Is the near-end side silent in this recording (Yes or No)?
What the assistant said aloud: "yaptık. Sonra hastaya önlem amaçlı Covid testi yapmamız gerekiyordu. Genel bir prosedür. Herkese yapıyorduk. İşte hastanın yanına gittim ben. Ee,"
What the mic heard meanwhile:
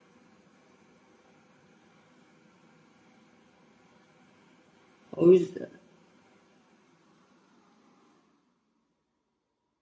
No